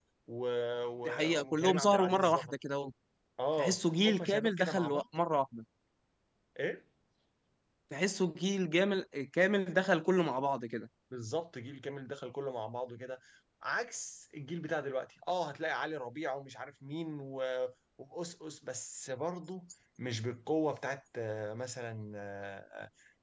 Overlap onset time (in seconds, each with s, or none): 1.0 s